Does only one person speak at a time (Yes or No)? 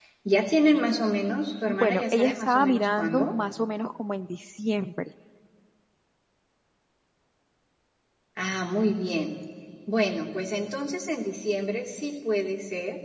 No